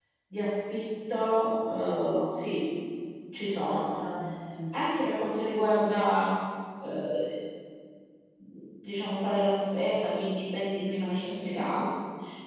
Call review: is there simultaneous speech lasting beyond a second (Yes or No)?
No